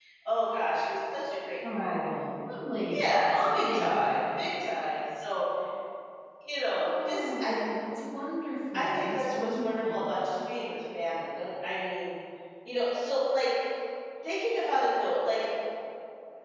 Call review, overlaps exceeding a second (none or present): present